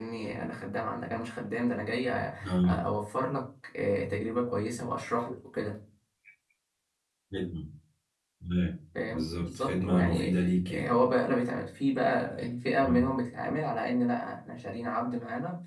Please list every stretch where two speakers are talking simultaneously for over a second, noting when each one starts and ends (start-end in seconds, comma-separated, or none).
9.1-10.4